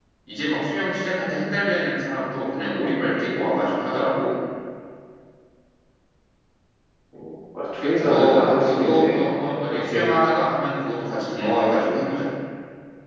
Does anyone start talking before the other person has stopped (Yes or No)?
Yes